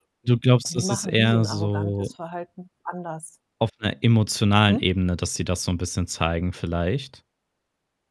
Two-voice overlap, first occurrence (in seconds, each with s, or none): 0.7 s